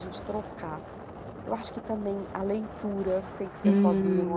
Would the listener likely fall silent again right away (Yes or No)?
No